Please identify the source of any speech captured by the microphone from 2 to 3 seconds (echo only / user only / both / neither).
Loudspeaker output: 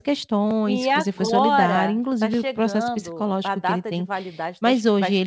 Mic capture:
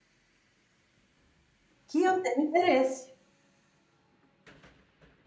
user only